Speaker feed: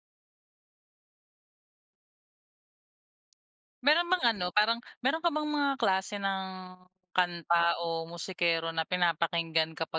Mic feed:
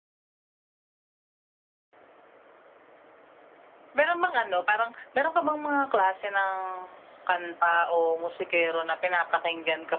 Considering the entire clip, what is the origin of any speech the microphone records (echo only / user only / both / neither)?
echo only